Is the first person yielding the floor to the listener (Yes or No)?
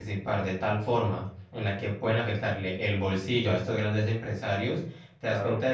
No